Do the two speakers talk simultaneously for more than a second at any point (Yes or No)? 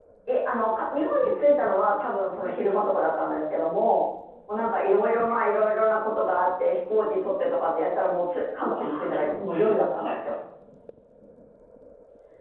Yes